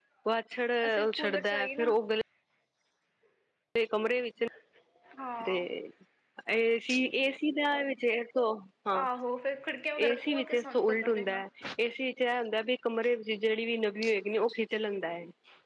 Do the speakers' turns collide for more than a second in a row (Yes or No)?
Yes